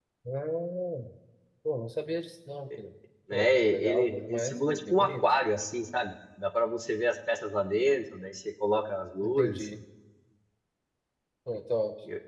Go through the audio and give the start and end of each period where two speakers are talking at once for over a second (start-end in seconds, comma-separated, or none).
3.3-5.3